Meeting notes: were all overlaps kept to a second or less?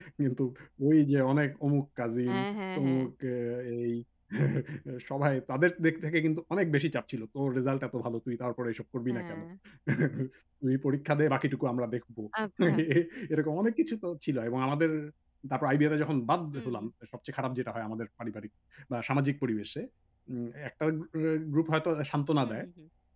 Yes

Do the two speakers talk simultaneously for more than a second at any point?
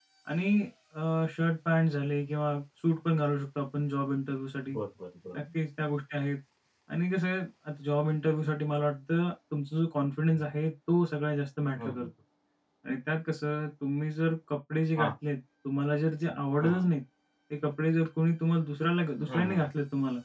No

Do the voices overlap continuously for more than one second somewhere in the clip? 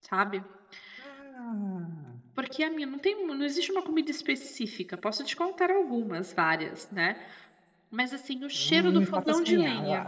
Yes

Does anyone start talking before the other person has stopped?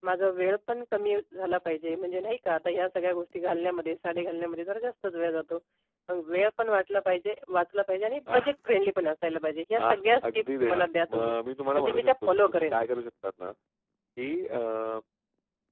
Yes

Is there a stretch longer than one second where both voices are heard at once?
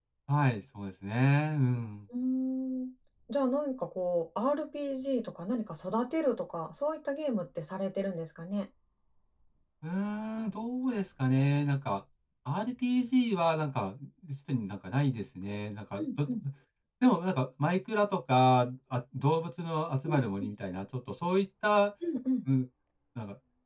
No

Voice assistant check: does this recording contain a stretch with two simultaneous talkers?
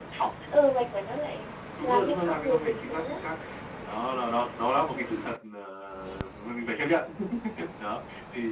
Yes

